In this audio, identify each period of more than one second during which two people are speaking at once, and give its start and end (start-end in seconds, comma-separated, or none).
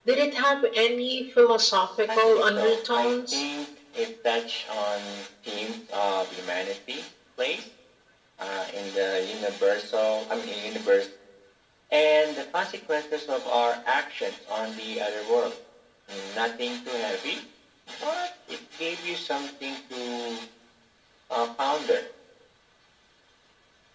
2.1-3.4